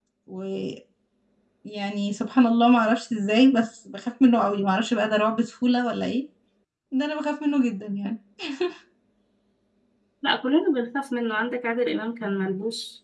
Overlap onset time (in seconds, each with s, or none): none